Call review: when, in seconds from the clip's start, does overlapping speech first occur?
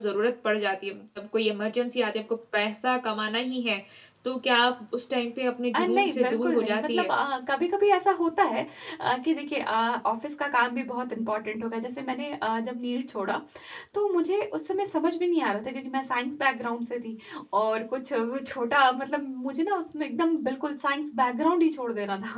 5.7 s

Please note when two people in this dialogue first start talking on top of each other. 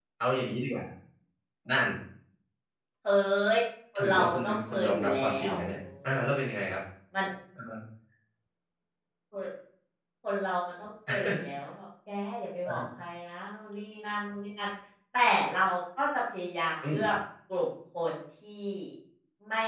4.0 s

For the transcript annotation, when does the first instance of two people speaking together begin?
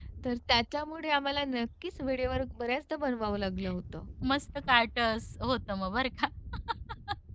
none

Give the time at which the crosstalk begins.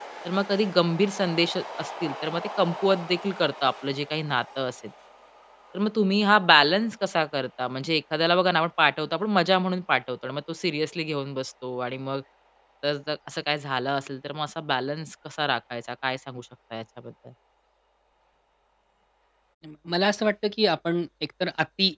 none

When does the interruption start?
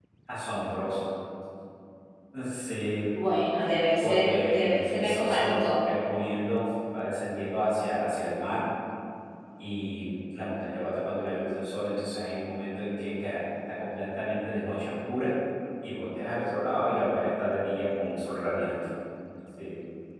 4.0 s

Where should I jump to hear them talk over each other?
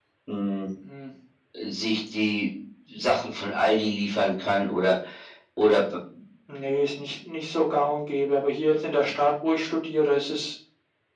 none

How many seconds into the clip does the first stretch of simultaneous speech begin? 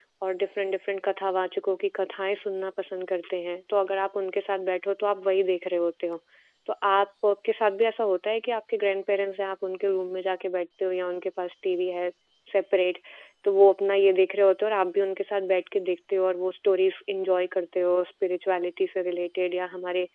none

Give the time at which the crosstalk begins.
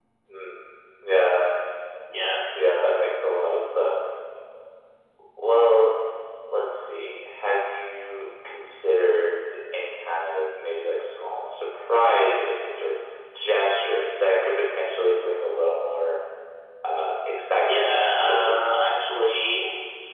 17.7 s

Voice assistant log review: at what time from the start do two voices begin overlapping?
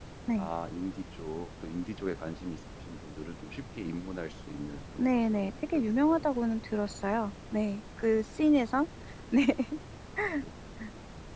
5.0 s

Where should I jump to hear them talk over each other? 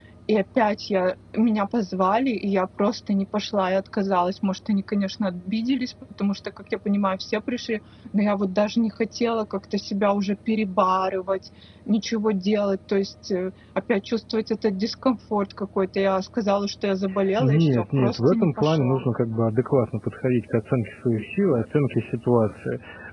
17.4 s

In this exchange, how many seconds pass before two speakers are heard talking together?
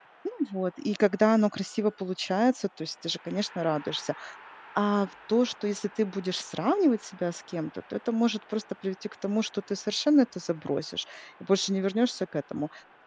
none

